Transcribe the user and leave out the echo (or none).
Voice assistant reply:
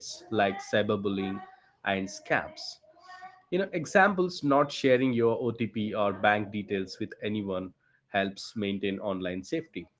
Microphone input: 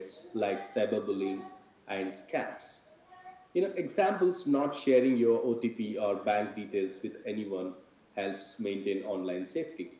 none